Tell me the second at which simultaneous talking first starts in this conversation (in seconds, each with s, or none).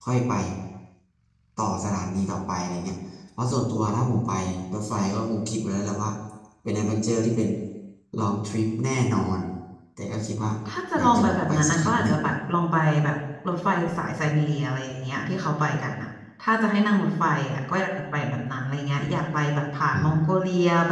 11.0 s